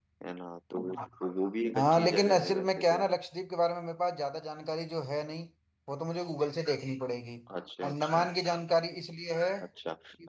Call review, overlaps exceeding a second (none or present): present